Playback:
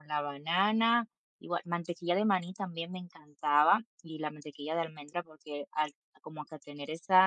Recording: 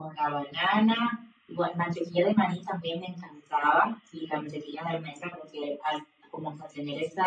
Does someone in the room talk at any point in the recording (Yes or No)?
No